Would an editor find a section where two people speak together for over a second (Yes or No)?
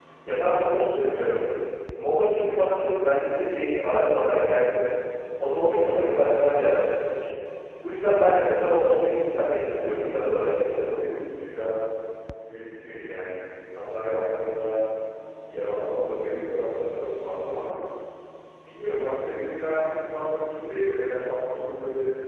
Yes